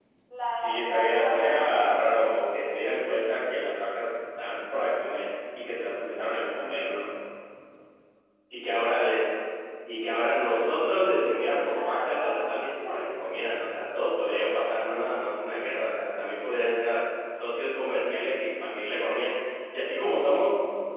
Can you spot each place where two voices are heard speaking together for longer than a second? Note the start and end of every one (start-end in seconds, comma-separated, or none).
0.5-2.3, 11.0-12.4